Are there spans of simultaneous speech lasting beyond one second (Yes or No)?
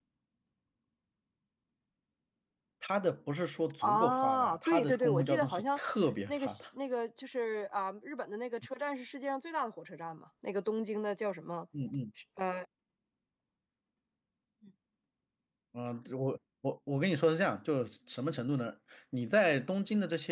Yes